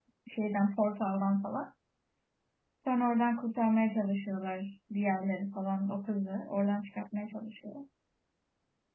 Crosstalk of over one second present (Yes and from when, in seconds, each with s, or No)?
No